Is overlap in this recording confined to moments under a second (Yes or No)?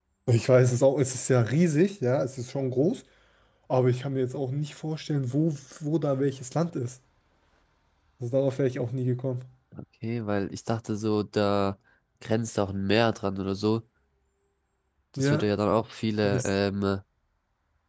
Yes